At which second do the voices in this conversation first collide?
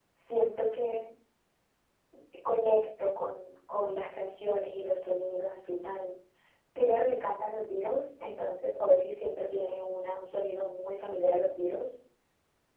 none

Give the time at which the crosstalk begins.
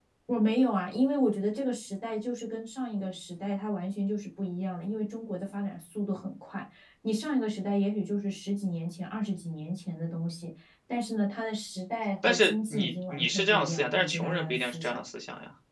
12.2 s

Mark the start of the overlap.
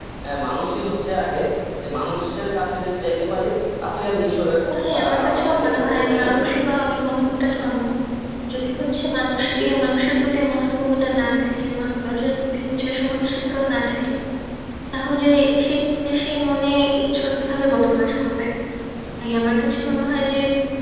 5.0 s

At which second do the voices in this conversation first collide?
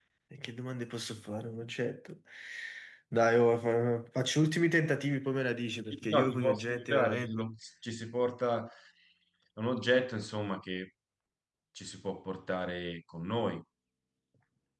5.9 s

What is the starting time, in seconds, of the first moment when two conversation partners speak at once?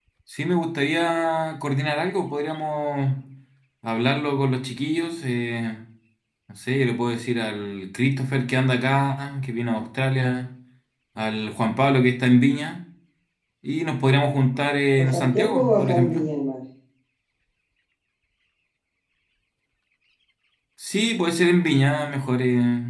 14.9 s

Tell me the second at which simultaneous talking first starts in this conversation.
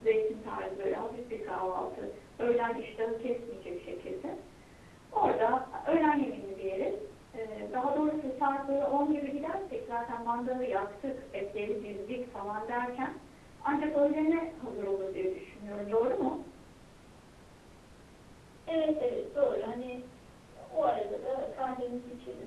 none

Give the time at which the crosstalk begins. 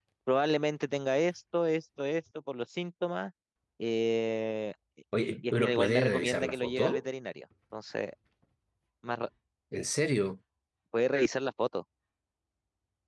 5.5 s

